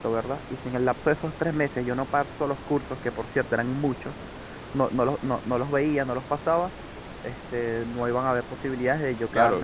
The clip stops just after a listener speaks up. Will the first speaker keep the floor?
No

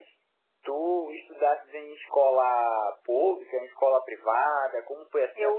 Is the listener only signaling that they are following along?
No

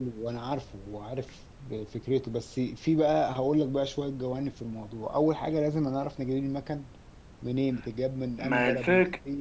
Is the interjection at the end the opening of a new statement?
Yes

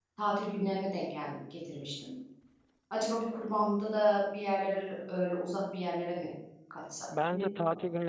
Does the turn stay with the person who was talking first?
No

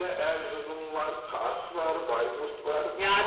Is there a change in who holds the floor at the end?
Yes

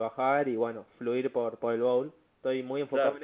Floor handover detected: No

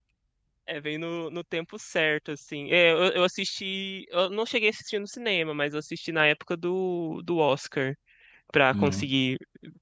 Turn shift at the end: No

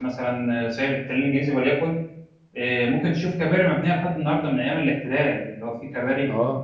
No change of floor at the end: No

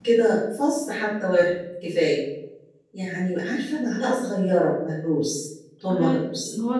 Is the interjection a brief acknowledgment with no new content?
No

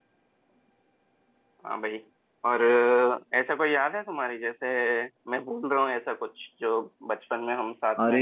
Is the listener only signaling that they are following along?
No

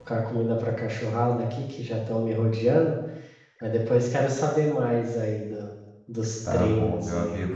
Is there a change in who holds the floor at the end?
Yes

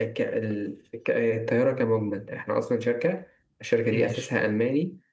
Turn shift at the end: No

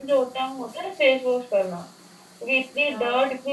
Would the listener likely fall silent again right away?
Yes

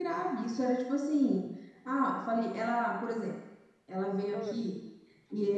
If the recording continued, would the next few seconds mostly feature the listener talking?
No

